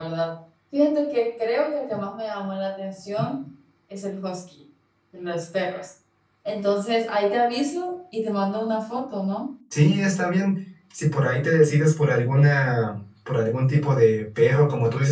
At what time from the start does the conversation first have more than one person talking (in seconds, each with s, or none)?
none